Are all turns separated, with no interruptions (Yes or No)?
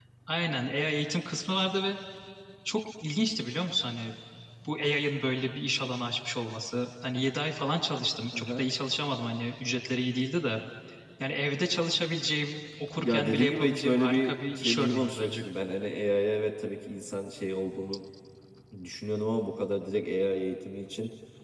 No